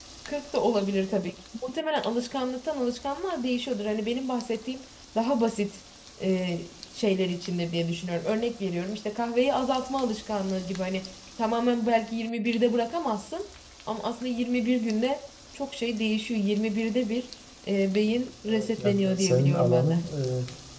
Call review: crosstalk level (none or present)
present